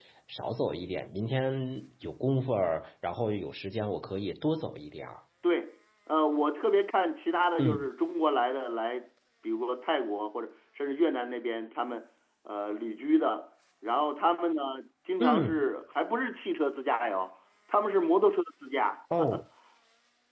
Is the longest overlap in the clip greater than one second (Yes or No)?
No